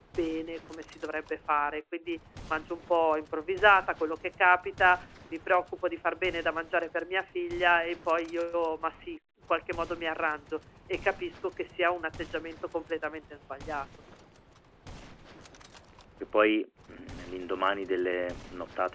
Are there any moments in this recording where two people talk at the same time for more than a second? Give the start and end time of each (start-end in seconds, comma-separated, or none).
none